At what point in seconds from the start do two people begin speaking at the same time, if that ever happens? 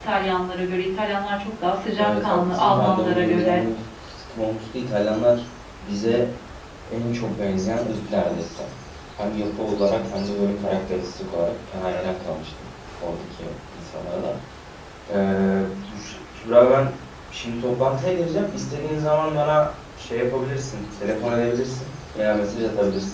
2.0 s

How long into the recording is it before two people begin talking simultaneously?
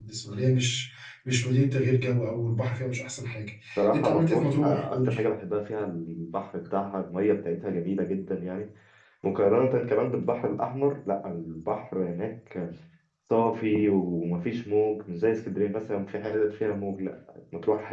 3.9 s

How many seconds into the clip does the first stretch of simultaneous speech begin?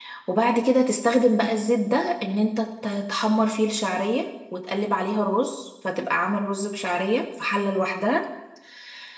none

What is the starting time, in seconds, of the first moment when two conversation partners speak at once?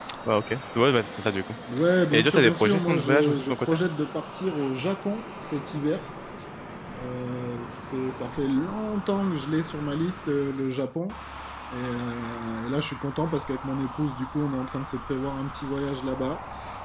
2.1 s

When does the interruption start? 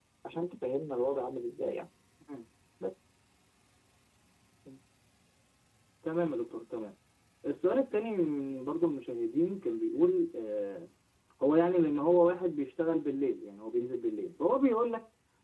none

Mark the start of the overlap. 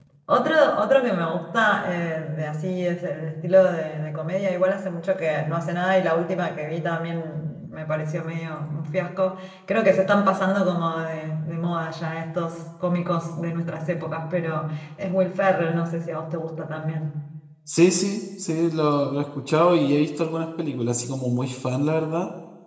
none

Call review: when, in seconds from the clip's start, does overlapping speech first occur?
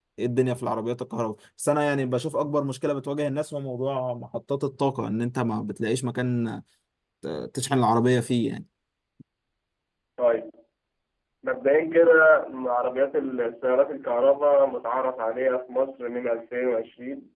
none

